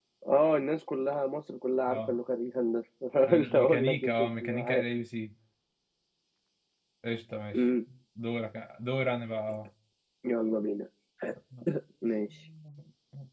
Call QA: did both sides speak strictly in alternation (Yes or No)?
No